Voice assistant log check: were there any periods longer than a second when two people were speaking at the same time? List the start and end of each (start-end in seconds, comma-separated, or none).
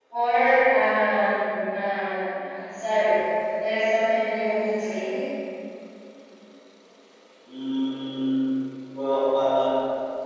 none